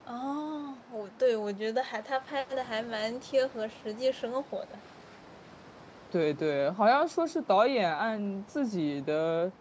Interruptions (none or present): none